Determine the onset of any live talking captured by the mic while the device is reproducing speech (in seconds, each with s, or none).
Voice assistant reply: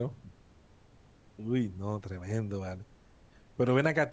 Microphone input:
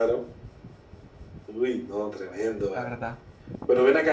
2.7 s